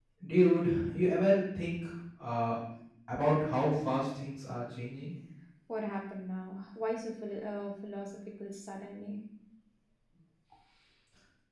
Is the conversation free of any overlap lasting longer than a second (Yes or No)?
Yes